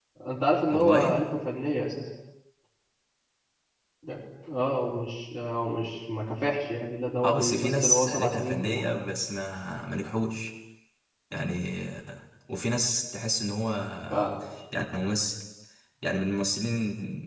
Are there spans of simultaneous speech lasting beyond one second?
Yes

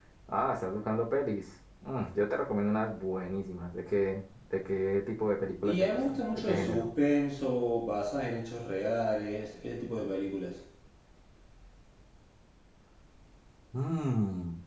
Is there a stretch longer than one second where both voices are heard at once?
Yes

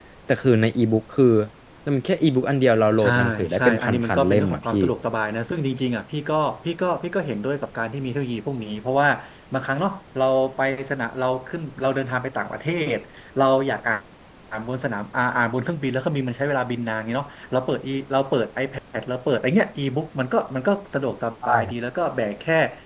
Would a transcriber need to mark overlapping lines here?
Yes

